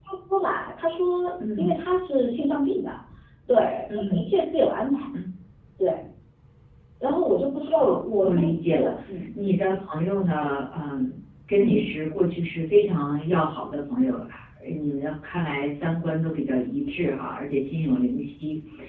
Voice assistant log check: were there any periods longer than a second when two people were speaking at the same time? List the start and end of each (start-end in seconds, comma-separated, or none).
7.6-8.9